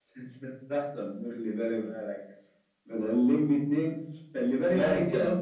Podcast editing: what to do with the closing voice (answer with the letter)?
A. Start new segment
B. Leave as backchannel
B